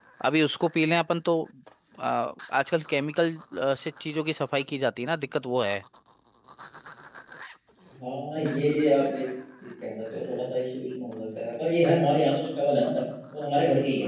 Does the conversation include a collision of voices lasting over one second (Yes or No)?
No